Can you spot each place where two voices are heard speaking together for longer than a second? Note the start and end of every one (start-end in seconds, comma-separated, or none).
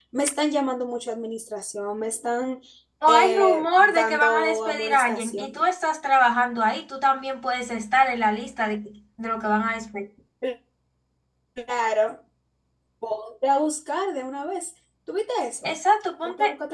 3.1-5.6